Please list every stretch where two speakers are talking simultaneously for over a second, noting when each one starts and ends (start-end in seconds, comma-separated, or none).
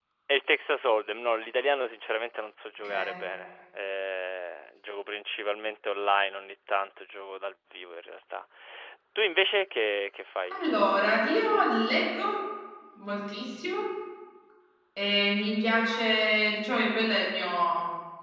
none